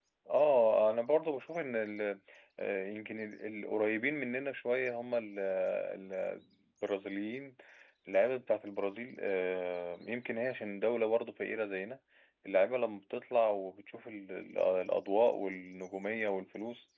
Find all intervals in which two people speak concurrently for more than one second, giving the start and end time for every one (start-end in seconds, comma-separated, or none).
none